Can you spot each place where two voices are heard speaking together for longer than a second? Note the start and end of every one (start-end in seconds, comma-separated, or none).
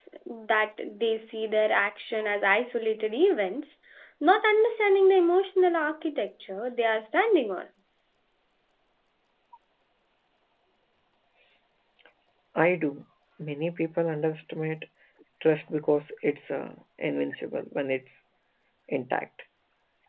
none